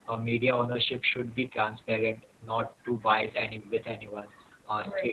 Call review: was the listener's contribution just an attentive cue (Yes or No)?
Yes